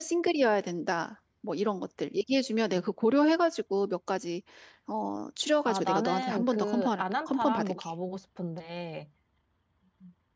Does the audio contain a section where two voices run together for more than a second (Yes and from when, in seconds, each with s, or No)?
Yes, from 5.7 s